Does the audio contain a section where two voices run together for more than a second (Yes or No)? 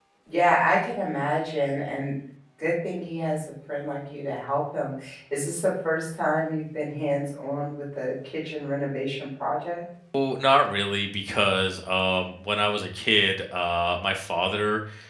No